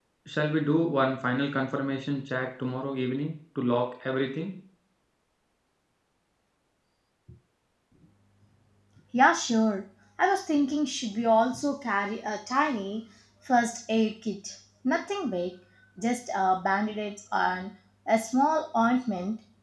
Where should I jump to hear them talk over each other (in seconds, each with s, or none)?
none